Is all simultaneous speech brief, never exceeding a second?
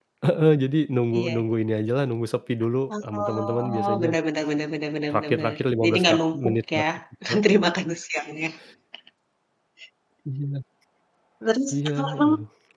No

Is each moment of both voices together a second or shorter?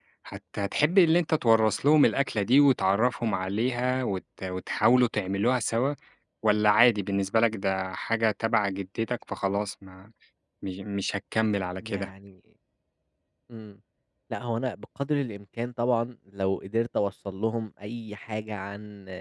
Yes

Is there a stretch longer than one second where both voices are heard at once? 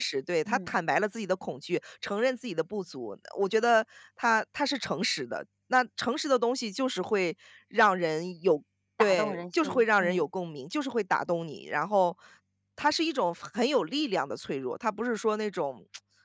Yes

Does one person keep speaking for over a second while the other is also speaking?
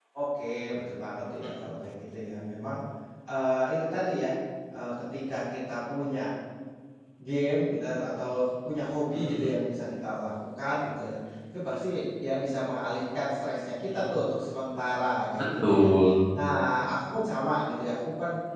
No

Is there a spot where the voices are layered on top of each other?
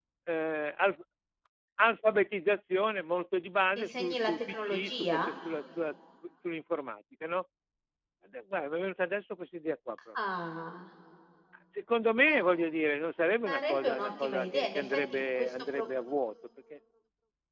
Yes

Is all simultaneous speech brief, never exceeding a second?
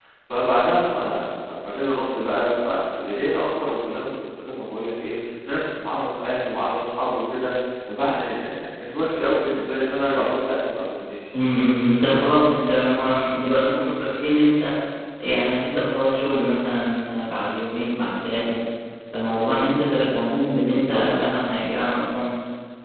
Yes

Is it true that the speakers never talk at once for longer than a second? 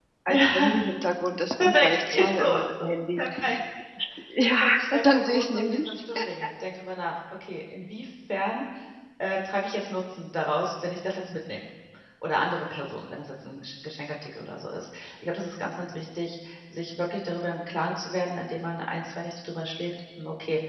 No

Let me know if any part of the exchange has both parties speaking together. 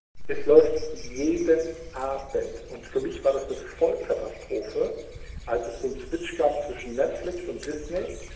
No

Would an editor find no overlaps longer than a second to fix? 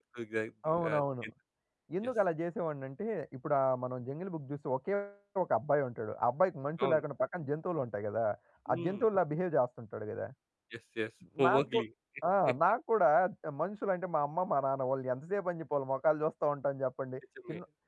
Yes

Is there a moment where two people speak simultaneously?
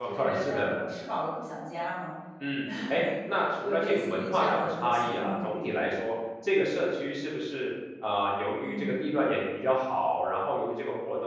Yes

